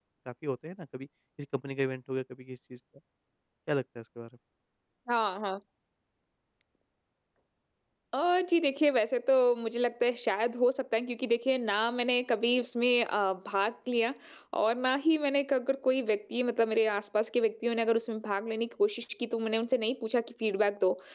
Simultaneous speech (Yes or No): No